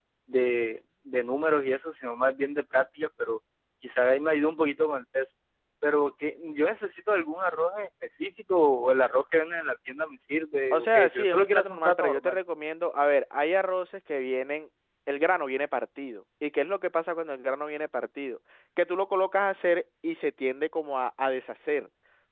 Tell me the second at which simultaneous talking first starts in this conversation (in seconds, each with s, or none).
10.7 s